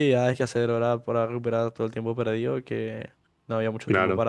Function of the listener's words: listening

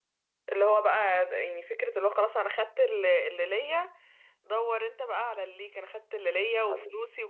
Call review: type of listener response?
listening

